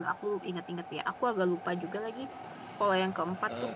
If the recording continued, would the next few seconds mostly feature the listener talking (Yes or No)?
No